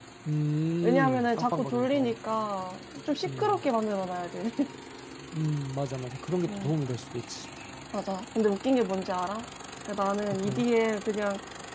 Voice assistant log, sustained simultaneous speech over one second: present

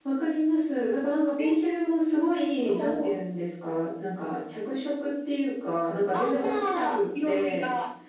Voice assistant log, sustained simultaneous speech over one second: present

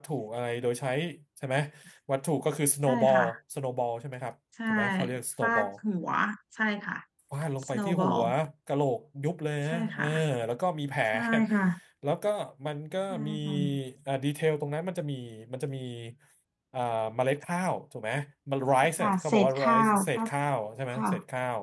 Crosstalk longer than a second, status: present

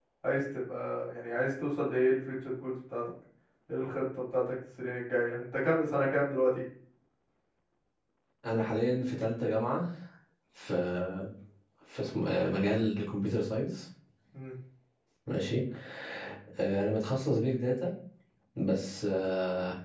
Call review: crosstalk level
none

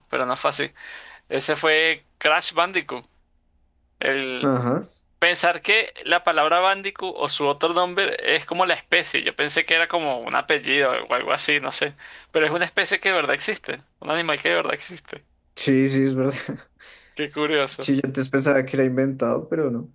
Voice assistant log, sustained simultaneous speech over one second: none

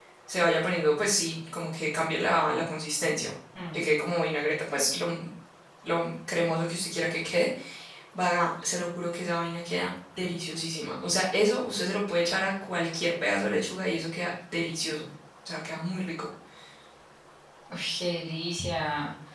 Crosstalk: none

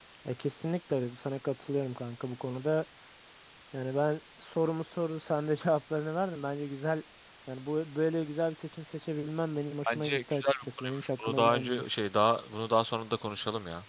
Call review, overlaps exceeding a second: present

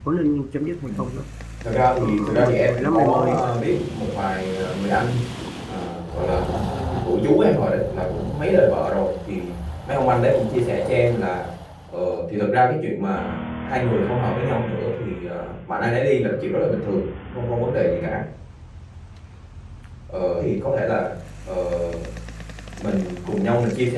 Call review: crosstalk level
present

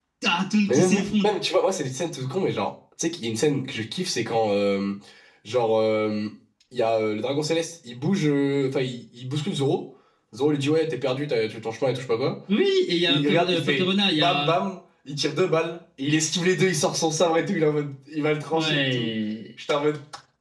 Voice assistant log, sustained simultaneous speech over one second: present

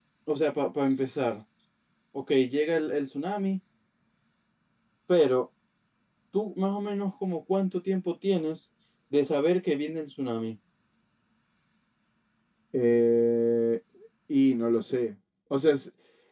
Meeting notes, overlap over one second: none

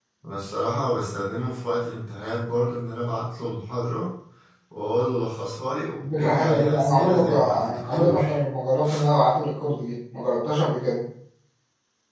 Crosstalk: present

